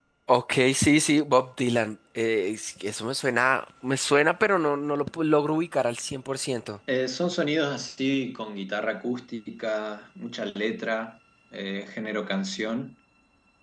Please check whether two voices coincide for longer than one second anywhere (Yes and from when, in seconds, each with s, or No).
No